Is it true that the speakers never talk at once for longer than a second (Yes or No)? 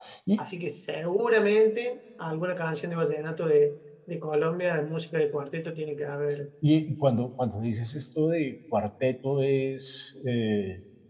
Yes